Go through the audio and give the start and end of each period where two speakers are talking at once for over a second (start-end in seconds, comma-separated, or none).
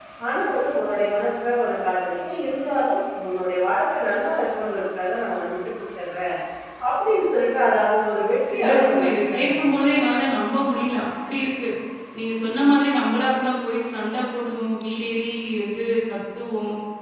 8.5-10.0